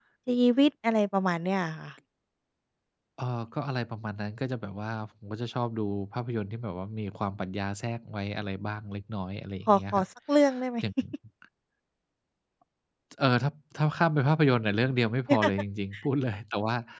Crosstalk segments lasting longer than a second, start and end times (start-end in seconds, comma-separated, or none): none